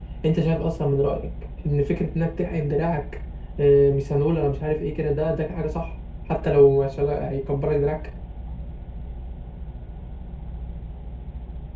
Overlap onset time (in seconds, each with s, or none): none